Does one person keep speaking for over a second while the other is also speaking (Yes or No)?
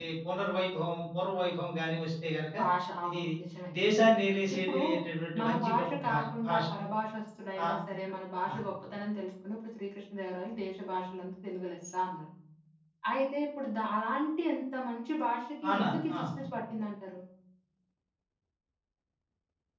Yes